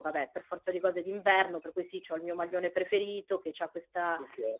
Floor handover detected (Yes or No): No